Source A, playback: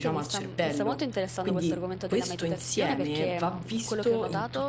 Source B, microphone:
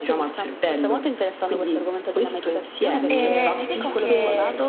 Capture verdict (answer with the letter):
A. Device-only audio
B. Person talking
B